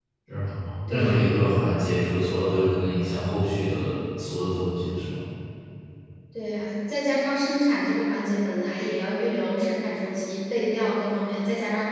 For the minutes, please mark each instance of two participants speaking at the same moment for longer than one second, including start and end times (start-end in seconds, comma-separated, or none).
none